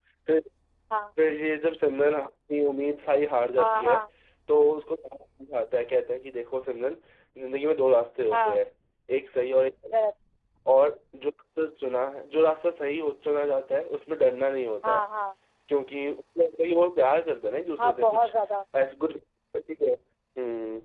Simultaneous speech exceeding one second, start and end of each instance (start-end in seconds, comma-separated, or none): none